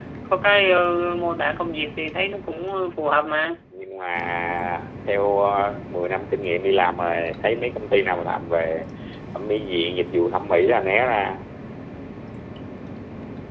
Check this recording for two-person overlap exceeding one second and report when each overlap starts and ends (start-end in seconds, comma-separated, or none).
none